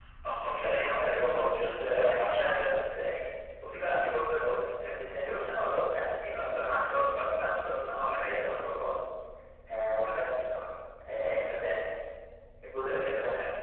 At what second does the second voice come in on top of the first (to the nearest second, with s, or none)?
1 s